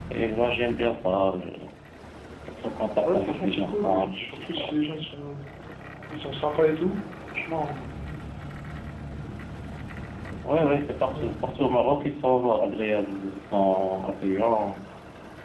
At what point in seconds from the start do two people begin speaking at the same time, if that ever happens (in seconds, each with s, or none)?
3.0 s